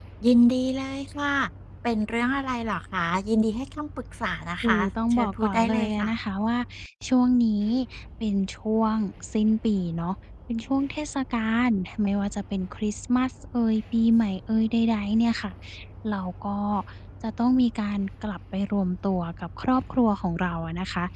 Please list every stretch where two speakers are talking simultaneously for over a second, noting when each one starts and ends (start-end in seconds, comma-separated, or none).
4.6-6.1